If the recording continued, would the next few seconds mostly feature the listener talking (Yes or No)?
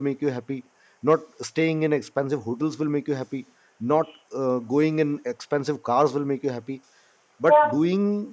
No